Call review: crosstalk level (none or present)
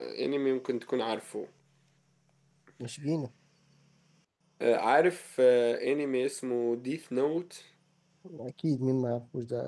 none